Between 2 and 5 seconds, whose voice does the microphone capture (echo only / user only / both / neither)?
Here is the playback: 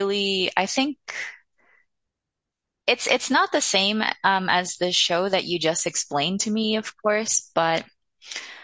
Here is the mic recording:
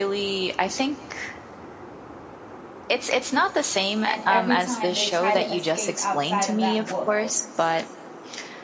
both